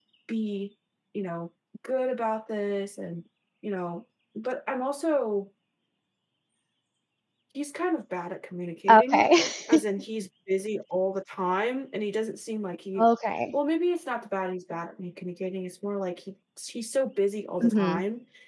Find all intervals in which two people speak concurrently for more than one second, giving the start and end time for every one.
none

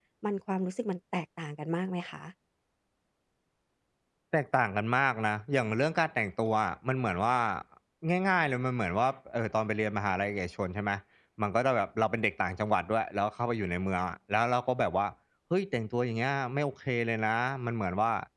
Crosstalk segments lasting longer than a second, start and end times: none

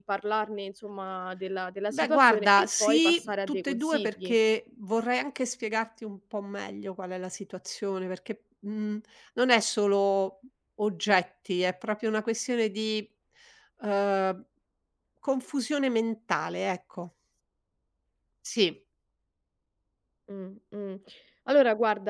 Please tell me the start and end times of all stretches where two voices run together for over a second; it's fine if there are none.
1.9-4.3

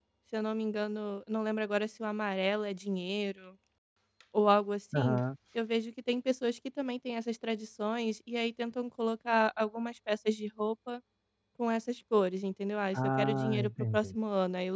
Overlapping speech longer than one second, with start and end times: 12.9-14.2

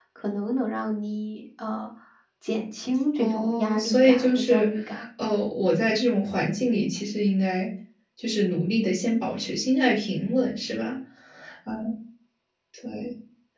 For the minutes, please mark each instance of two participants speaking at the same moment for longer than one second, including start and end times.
3.1-4.7

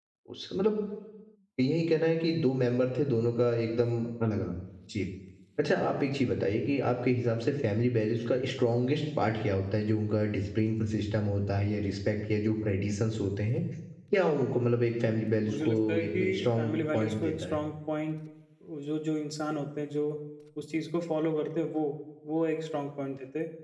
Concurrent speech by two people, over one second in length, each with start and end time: 15.4-17.6

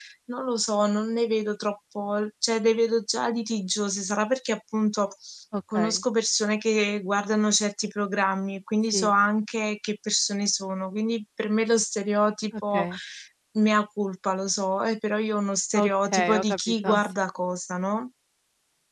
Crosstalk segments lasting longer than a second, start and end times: 15.8-17.0

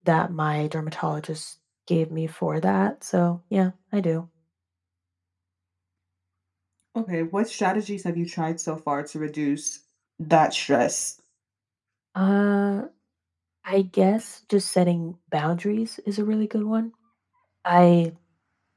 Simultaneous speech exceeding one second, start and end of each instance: none

